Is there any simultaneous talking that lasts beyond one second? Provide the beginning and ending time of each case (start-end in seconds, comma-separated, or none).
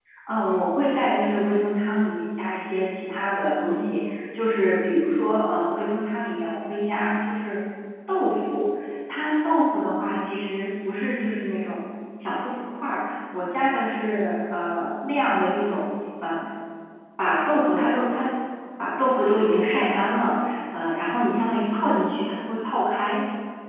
none